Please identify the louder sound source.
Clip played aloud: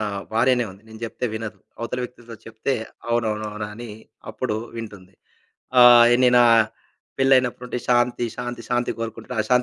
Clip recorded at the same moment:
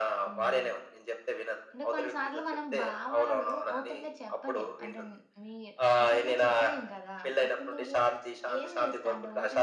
echo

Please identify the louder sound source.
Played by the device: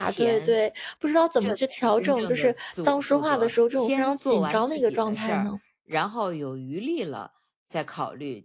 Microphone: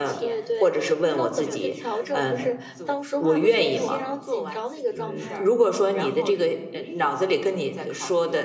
user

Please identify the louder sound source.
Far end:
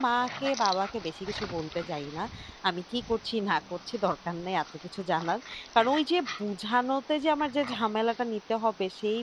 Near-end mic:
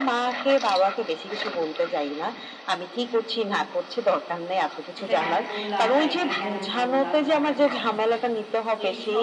echo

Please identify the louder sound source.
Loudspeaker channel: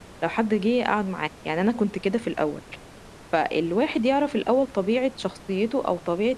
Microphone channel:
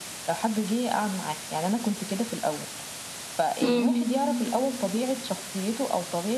user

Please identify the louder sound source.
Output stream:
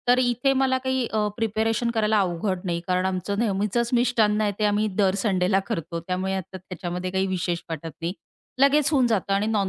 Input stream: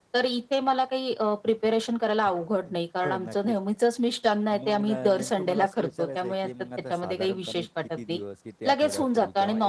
echo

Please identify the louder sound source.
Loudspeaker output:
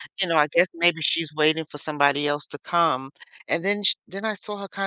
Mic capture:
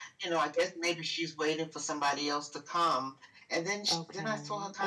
echo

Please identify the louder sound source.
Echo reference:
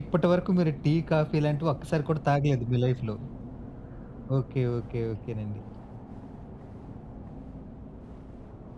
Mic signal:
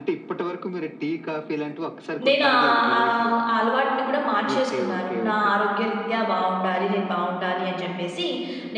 user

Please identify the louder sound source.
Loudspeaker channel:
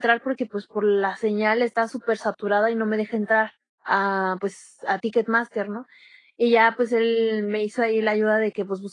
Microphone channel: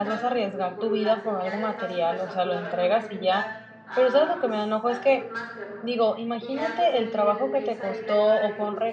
user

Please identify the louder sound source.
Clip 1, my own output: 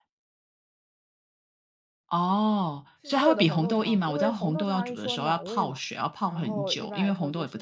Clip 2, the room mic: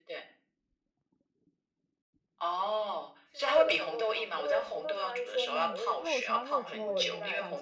echo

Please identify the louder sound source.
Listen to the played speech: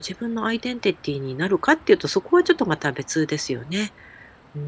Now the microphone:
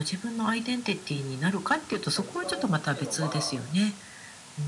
echo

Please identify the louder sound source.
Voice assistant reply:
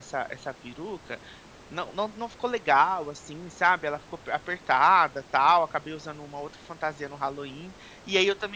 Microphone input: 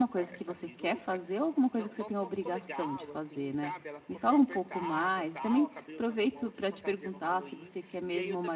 user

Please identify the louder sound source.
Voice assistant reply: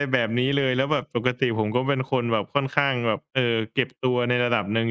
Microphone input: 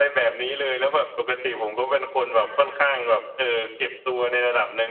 echo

